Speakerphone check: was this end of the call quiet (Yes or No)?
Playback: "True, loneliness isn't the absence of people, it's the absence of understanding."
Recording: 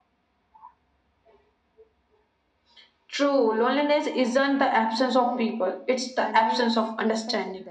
No